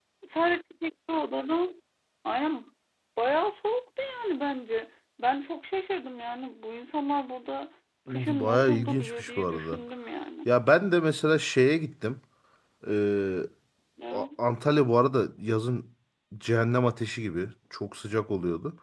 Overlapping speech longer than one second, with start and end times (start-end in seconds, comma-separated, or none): 8.1-9.8